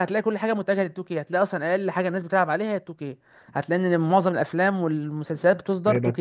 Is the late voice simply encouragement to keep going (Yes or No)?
No